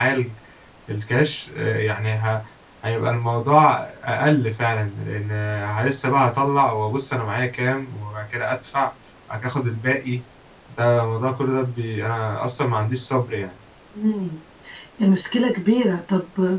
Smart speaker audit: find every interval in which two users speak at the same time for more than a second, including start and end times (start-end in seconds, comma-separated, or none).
none